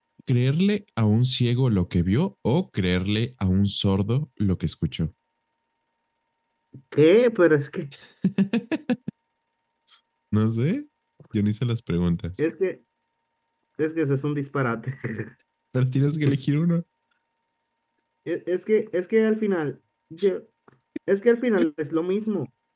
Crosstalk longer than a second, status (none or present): none